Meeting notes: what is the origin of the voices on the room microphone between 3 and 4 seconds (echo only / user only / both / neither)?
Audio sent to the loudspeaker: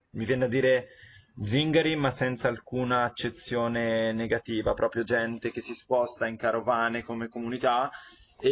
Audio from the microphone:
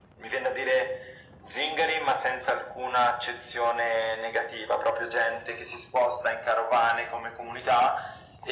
echo only